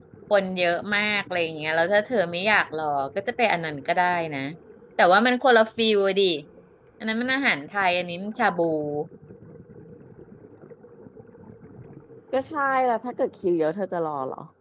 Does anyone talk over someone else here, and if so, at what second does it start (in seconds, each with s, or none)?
none